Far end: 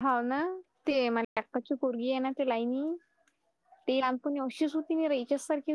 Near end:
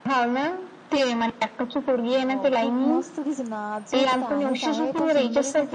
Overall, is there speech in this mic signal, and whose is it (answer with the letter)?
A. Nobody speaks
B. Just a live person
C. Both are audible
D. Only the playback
C